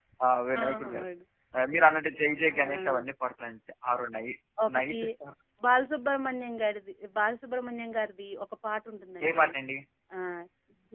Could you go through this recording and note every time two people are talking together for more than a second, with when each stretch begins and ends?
none

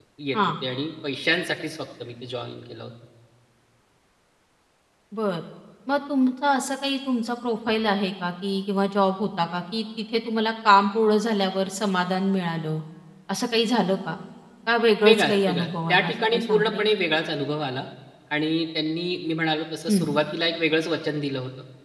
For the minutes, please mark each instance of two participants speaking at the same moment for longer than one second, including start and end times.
15.0-16.8

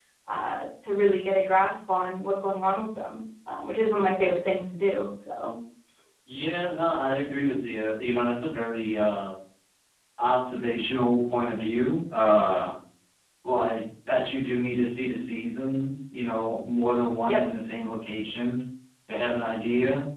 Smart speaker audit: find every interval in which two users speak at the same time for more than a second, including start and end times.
none

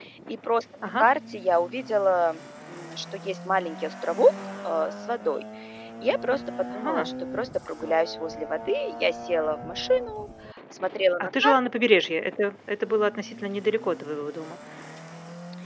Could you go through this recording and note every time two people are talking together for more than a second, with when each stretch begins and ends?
none

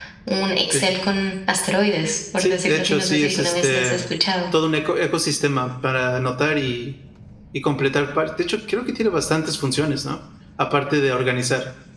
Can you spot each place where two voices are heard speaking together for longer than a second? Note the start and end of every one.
2.4-4.0

